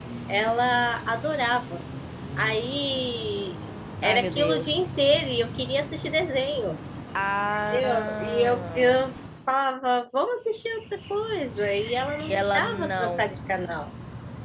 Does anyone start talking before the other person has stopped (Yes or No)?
Yes